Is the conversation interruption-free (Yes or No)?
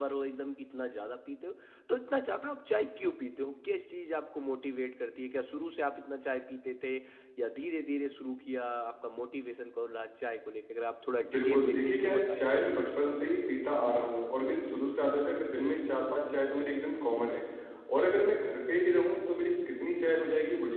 No